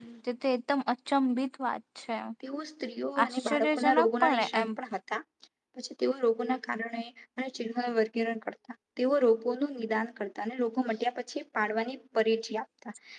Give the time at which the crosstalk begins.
3.2 s

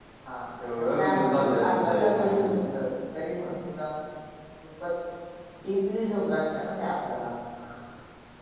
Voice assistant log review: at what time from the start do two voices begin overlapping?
1.0 s

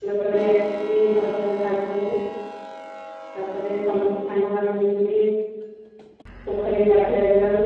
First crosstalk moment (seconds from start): none

